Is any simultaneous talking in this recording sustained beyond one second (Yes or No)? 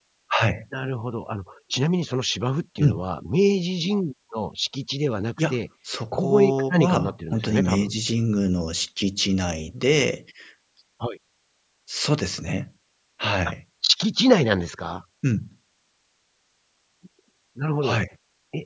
Yes